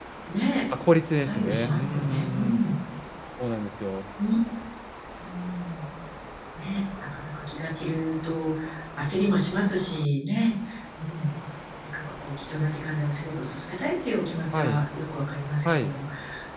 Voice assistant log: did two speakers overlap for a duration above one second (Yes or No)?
Yes